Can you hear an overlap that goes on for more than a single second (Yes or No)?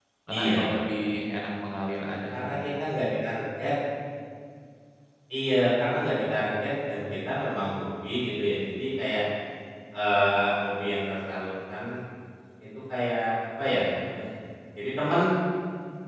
No